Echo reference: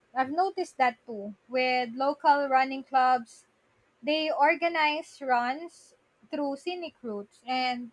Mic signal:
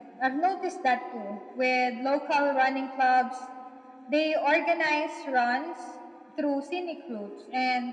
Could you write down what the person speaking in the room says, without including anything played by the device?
none

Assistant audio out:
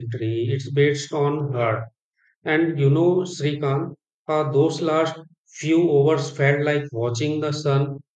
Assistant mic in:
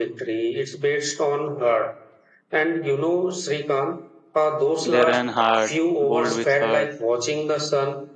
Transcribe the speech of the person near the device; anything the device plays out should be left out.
They ran hard, bowled with heart,

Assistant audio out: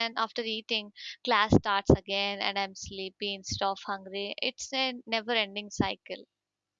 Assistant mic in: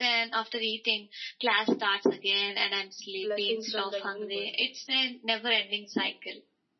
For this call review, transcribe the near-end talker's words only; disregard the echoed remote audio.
blessing from the universe.

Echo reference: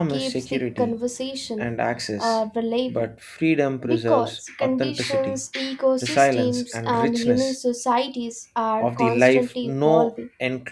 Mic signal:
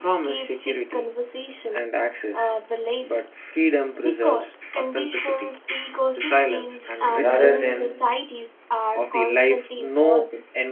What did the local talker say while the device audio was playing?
rather than

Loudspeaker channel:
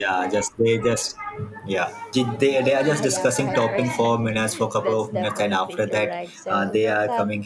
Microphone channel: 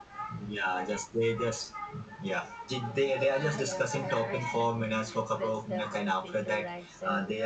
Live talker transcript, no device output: none

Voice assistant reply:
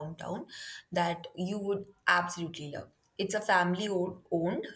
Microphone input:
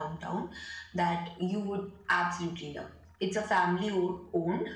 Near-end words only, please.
none

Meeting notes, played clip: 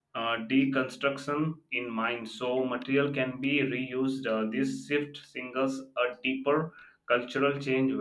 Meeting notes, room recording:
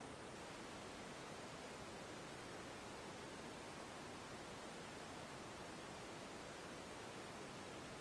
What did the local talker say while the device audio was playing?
none

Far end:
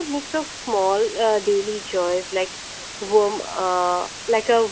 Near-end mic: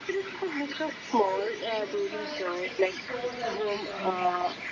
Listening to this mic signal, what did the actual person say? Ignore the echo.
So humans are like experts at these um

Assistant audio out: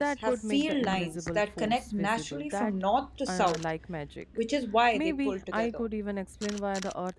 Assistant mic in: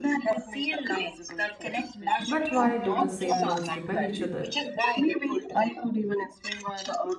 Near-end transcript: But why do the same poles repel each other?

